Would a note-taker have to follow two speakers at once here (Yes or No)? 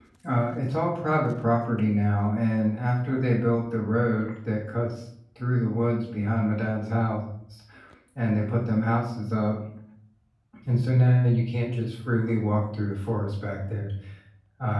No